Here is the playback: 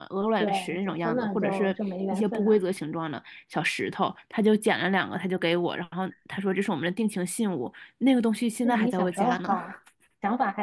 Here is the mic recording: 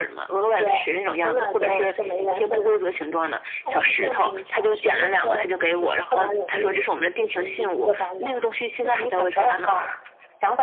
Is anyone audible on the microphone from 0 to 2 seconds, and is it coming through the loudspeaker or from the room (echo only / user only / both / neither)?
echo only